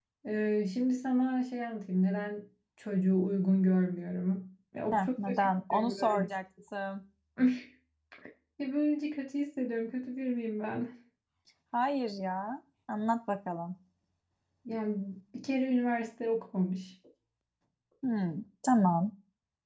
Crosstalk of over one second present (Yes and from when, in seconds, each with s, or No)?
Yes, from 4.9 s